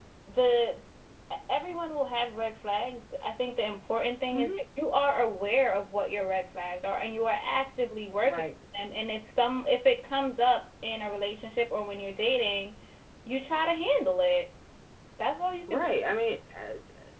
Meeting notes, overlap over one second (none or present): none